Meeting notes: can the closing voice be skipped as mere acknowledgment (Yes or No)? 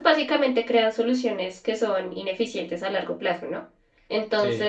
Yes